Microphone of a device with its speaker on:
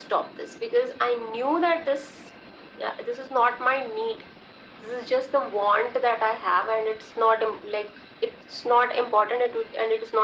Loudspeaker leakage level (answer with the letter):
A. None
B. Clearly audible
B